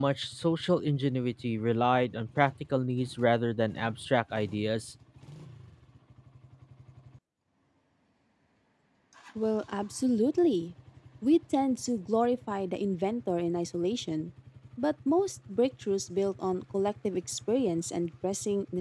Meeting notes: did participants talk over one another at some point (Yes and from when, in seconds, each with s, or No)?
No